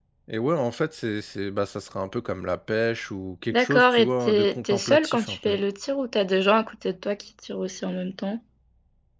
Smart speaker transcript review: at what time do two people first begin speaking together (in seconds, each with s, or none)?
3.5 s